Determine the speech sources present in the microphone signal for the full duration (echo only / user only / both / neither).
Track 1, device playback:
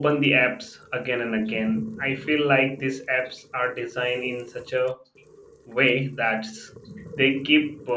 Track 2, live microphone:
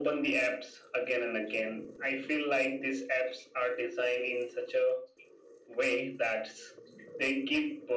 echo only